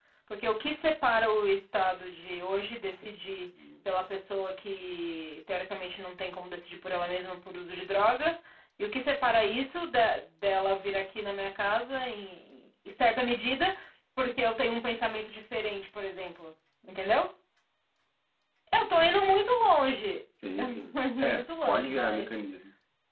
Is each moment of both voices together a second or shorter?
No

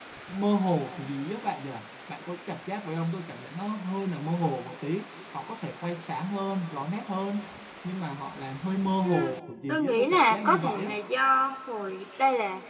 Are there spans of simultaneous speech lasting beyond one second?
Yes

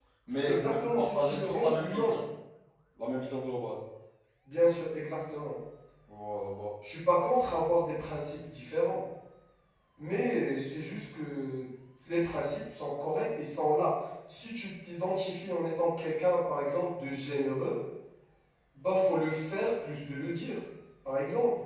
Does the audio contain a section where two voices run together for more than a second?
Yes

